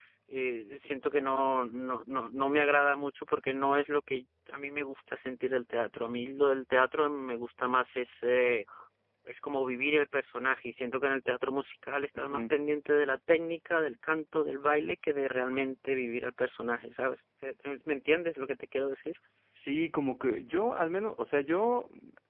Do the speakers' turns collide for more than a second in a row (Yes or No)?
No